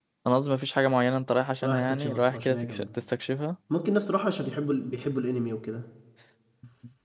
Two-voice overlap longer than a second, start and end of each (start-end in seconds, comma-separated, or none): 1.6-2.8